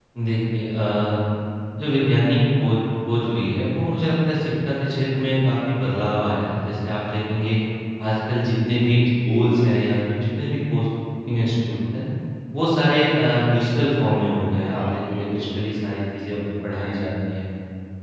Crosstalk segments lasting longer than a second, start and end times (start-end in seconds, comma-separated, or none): 14.5-16.0